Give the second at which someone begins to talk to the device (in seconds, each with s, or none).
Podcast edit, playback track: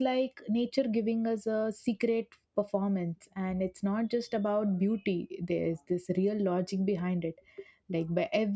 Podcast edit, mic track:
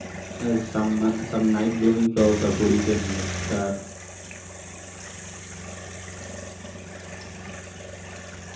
0.4 s